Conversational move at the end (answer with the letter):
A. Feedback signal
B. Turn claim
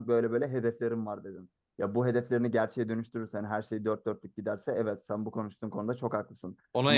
B